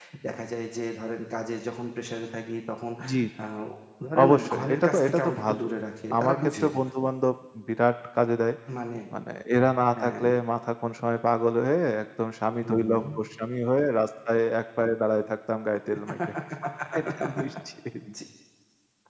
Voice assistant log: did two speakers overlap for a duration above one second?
Yes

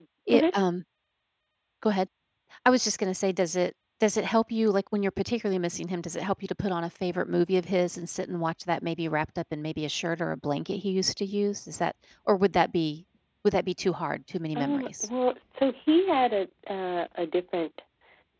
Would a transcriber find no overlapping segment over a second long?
Yes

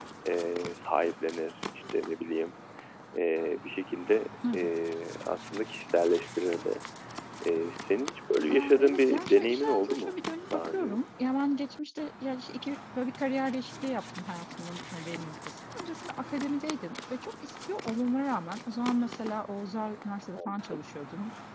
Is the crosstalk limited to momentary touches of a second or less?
No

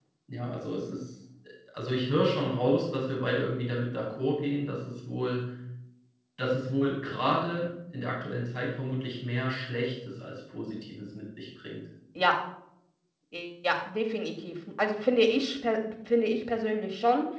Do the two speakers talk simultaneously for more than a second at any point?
No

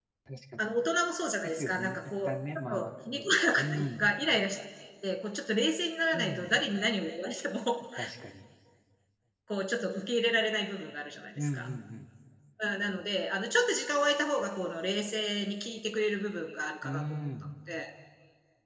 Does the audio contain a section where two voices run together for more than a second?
Yes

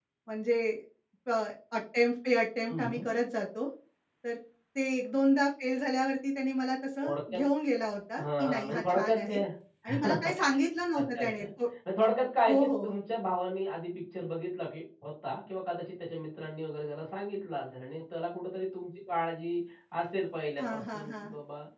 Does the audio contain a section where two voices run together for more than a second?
Yes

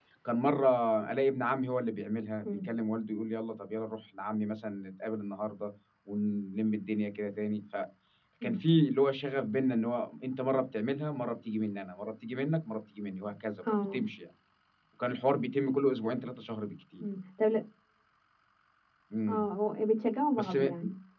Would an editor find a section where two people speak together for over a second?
No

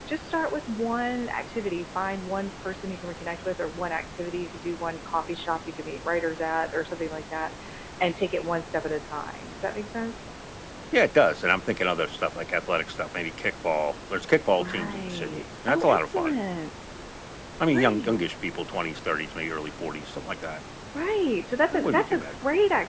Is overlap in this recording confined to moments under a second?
No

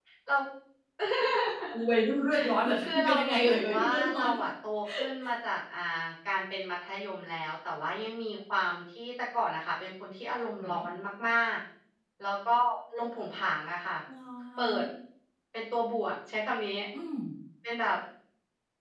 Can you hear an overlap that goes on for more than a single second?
Yes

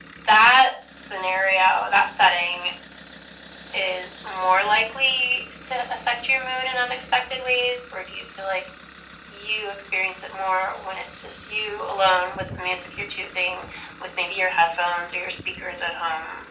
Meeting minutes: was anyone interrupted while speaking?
No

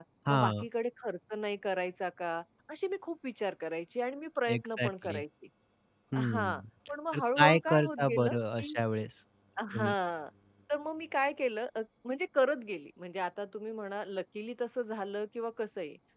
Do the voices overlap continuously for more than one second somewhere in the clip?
Yes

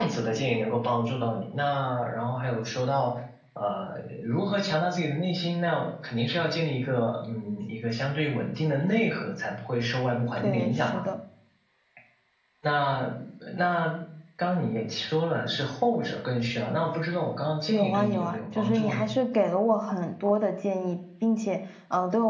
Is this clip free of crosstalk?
No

